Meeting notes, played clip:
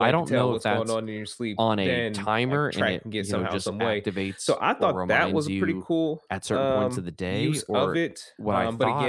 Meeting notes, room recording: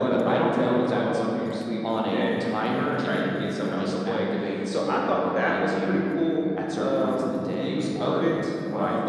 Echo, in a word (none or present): present